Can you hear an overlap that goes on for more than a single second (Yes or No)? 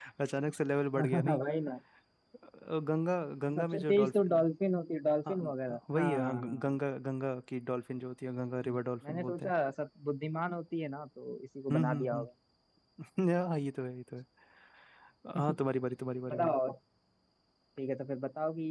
Yes